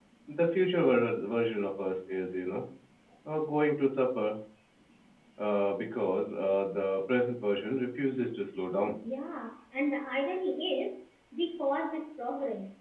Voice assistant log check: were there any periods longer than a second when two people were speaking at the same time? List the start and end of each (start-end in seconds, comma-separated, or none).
none